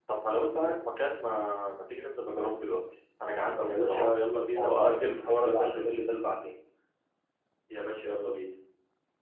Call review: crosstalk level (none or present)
present